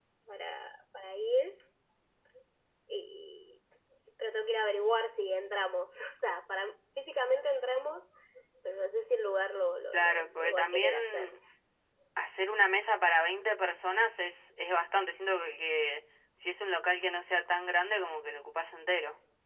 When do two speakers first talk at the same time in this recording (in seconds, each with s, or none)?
9.9 s